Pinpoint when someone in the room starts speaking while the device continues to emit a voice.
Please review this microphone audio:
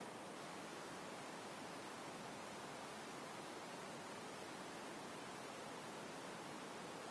none

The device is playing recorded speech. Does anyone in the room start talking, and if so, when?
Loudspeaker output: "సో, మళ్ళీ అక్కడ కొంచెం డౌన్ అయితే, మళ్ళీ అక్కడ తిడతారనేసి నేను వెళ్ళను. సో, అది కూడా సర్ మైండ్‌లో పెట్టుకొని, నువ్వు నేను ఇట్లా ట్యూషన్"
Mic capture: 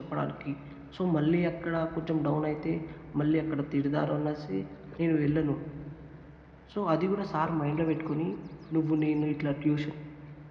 none

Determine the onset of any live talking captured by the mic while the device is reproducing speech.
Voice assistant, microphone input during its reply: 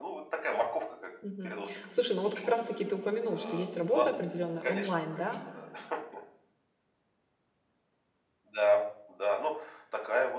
1.2 s

